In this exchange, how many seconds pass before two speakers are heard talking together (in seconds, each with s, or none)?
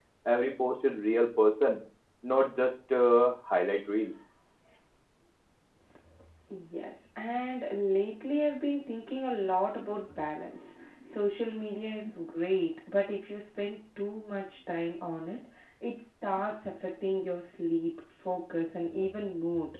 none